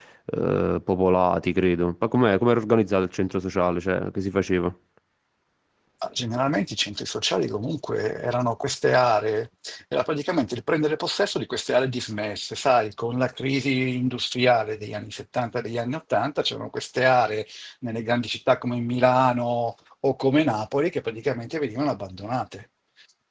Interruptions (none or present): none